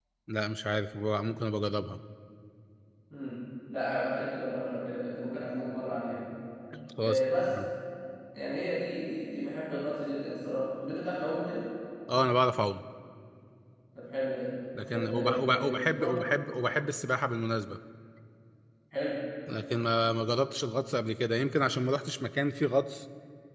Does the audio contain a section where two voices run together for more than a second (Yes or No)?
Yes